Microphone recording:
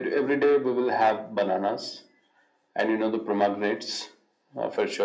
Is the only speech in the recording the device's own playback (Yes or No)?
Yes